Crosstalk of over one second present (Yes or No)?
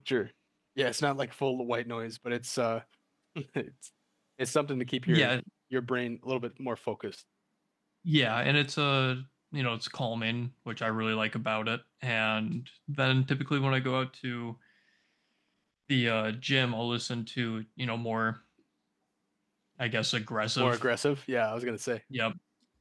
No